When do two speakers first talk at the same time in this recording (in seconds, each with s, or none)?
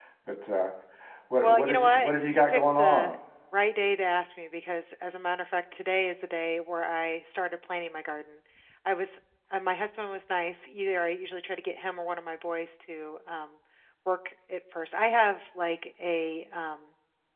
1.4 s